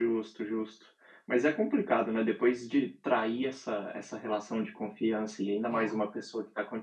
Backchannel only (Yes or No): Yes